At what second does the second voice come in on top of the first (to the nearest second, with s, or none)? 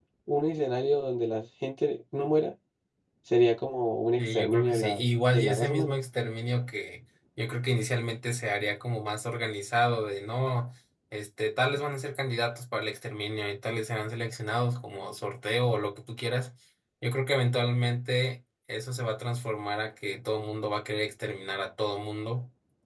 4 s